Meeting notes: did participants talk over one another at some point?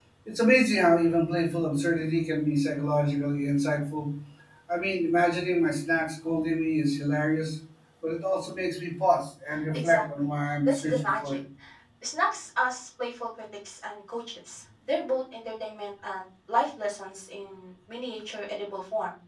Yes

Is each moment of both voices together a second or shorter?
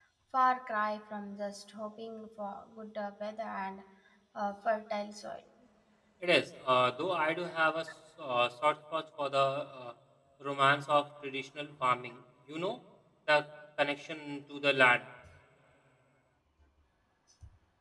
Yes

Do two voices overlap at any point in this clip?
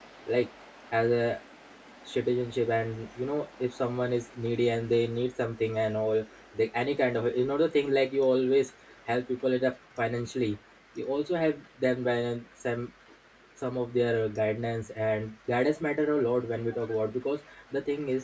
No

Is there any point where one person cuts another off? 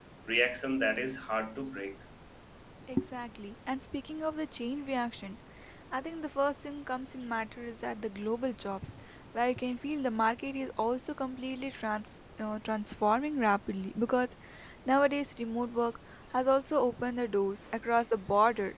No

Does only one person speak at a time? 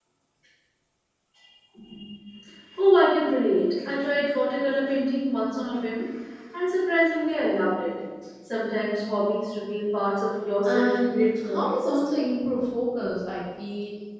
No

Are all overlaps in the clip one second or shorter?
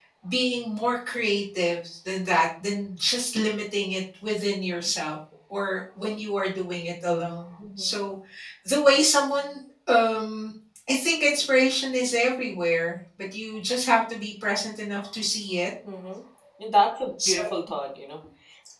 Yes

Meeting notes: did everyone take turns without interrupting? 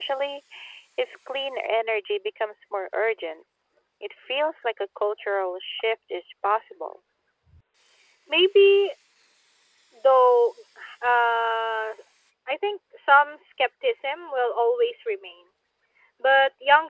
Yes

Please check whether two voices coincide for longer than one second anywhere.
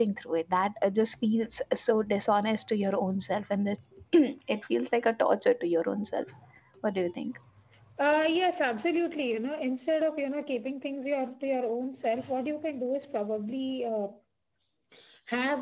No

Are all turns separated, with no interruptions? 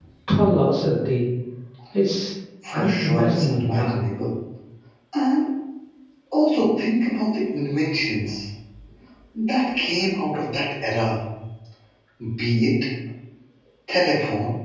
No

